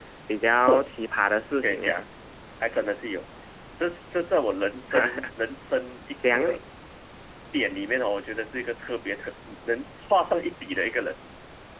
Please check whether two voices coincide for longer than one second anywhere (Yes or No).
No